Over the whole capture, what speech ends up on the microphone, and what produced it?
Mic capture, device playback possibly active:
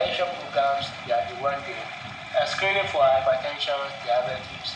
echo only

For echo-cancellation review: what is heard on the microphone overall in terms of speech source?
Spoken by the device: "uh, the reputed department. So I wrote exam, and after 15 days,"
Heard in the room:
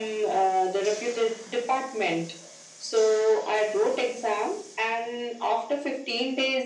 echo only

